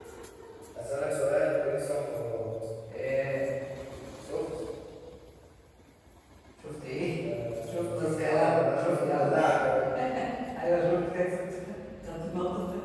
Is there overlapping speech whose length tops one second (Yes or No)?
Yes